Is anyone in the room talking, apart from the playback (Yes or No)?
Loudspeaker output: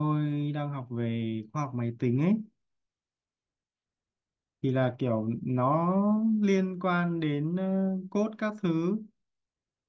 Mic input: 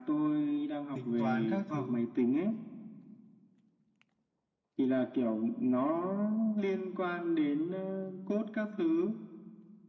Yes